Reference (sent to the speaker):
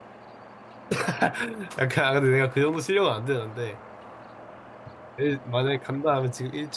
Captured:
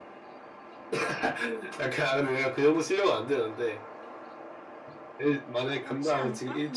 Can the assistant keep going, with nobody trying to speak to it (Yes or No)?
No